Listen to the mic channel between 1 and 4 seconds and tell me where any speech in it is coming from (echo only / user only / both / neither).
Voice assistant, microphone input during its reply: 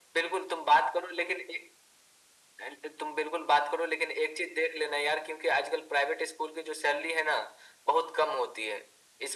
echo only